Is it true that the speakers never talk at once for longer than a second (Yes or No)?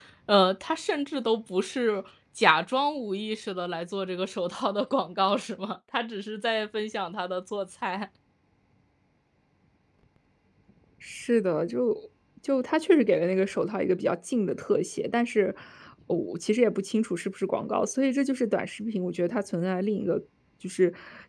Yes